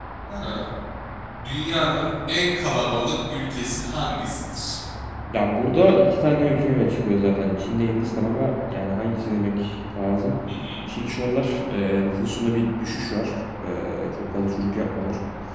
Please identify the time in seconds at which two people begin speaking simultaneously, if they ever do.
none

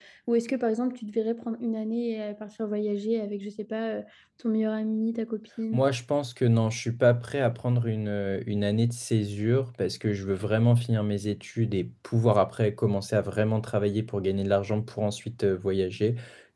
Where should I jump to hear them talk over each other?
none

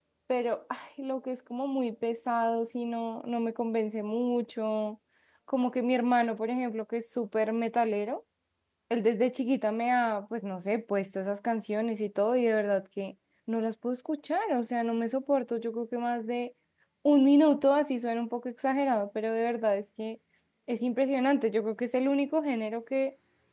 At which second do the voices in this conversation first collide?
none

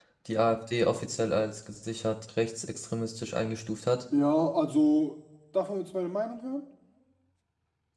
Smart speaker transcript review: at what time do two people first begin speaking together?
none

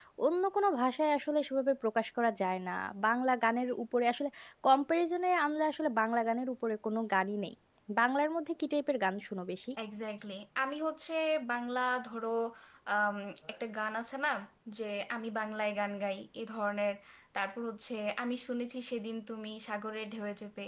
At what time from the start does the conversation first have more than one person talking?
none

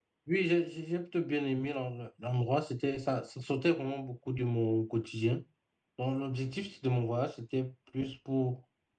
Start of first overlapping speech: none

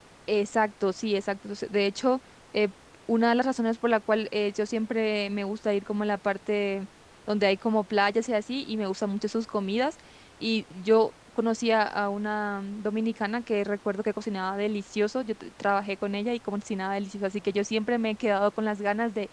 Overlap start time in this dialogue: none

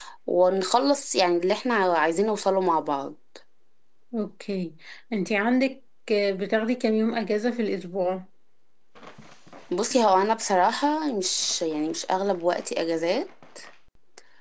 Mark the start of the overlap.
none

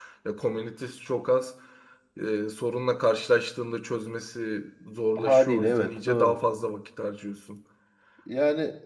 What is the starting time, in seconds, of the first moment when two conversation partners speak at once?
5.2 s

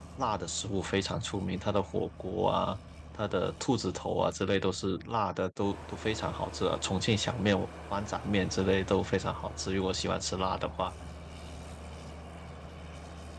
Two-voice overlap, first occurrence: none

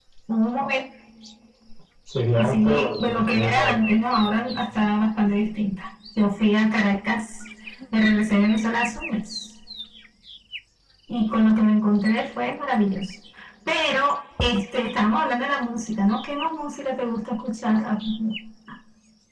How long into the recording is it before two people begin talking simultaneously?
2.4 s

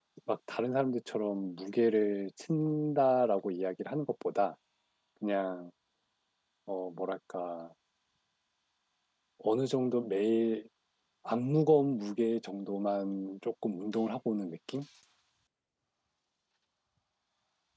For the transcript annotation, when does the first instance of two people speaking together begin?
none

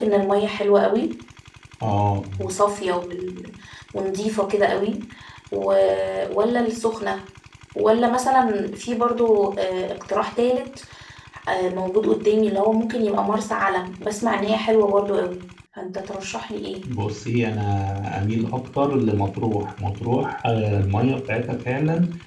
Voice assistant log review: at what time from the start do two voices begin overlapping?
none

